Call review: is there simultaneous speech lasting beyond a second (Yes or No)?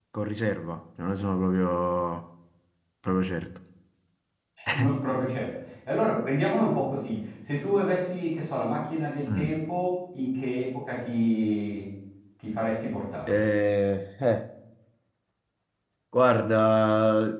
No